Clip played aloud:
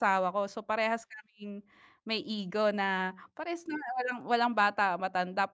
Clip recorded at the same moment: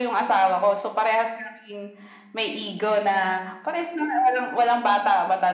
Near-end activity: none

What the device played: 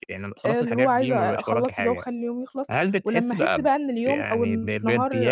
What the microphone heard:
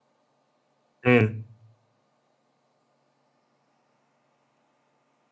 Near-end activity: present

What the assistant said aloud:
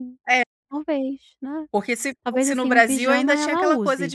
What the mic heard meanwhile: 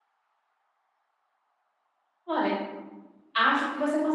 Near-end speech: present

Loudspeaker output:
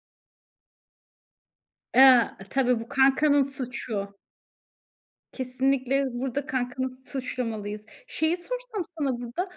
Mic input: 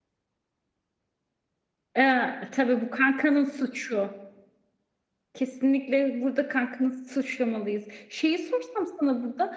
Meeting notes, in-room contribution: none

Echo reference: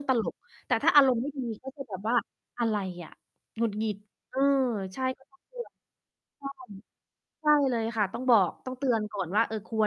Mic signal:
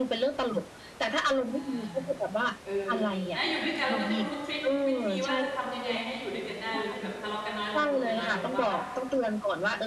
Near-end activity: present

